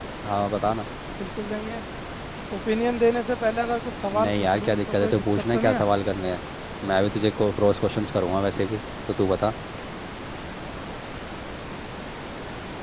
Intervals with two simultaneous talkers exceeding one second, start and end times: 4.1-5.8

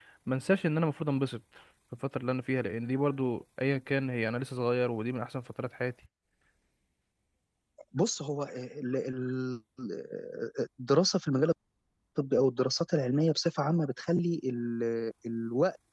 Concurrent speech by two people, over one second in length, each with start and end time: none

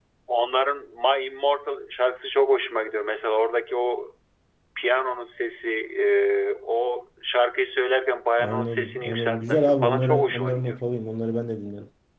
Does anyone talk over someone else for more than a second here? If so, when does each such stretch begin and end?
8.4-10.8

